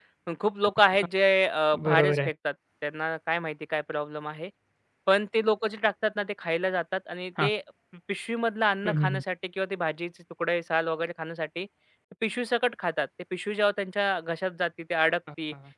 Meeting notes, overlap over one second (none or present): none